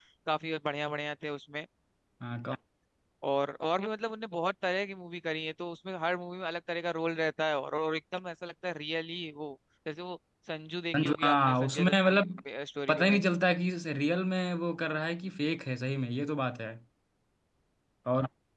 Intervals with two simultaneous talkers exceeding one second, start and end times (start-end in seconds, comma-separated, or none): 11.0-12.2